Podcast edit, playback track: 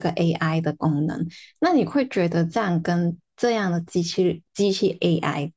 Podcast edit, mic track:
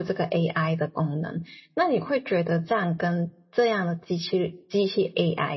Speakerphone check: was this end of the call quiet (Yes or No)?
Yes